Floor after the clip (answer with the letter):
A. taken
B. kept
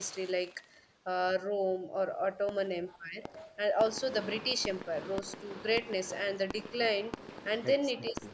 B